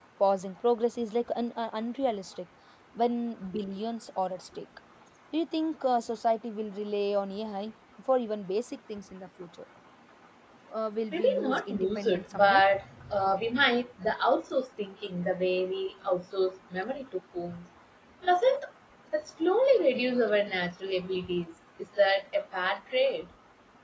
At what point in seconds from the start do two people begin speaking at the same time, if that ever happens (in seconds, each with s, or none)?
11.1 s